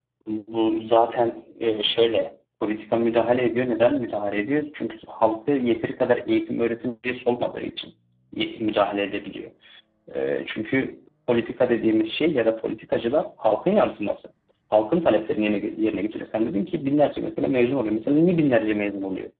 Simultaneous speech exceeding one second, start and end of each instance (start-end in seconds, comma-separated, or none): none